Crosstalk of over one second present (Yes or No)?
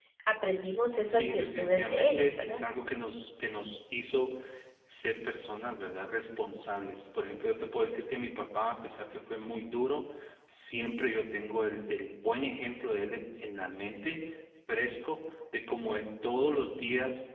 Yes